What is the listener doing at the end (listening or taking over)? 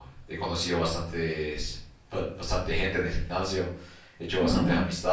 listening